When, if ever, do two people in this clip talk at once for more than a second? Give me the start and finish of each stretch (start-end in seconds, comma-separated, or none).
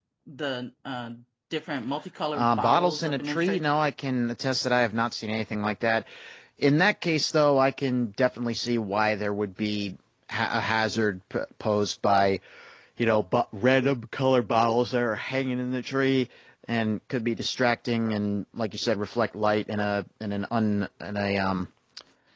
2.3-3.6